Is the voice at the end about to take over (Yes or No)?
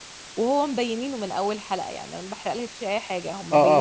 Yes